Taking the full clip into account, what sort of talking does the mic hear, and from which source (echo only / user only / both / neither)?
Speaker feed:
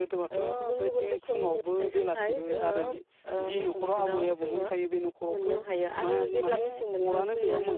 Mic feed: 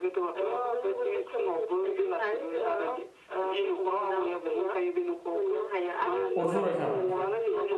both